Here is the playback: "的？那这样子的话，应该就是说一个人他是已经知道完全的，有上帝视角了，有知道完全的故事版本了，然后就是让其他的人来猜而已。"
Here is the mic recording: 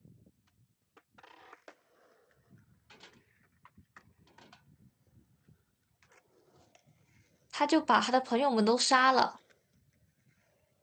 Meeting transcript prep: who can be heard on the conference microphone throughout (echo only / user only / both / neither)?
user only